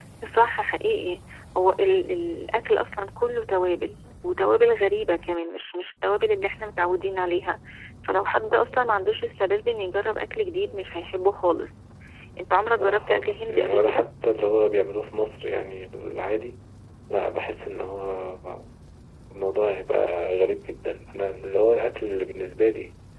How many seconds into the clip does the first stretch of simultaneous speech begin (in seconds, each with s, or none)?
12.8 s